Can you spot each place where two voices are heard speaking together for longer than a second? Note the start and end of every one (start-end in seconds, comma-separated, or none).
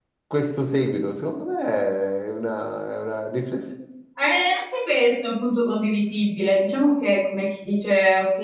none